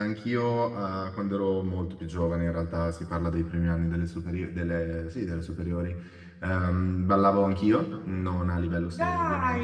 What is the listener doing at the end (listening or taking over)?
listening